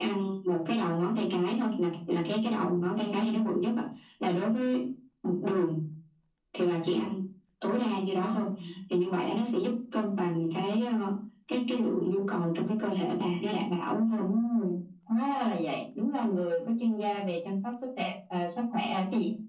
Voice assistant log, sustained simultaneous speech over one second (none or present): none